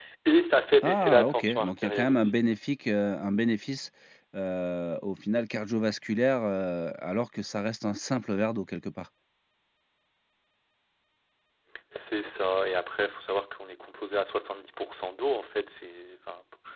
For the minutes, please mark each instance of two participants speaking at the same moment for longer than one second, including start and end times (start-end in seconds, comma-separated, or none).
0.8-2.3